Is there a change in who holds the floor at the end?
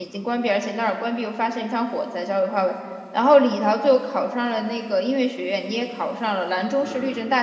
No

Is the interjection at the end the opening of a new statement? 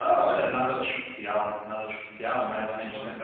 No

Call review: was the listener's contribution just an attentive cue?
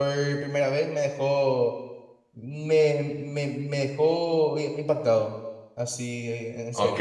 No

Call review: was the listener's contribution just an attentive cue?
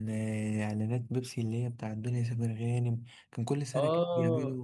No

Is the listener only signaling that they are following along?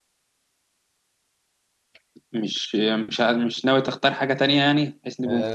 No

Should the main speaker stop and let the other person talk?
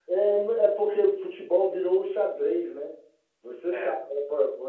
No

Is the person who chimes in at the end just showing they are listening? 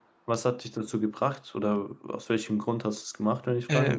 No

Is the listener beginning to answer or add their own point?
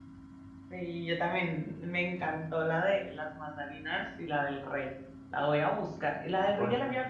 No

